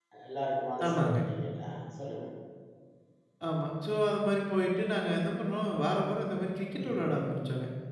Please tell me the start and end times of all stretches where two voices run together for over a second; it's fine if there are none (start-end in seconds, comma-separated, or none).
none